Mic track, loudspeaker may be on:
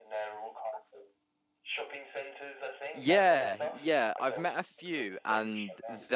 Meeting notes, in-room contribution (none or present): present